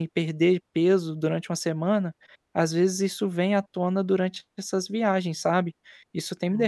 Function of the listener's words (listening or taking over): taking over